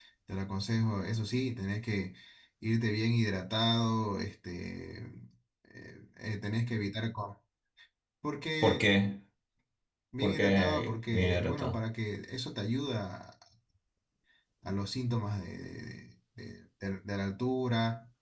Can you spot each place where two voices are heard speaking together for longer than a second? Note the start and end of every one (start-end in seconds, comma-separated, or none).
10.2-11.8